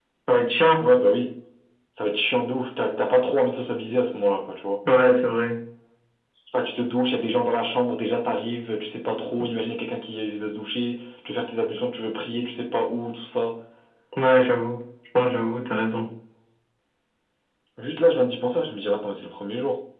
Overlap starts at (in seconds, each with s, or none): none